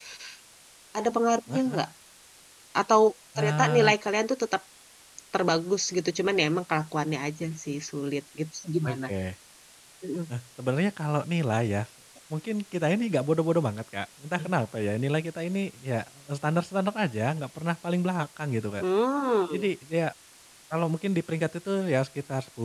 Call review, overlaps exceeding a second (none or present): none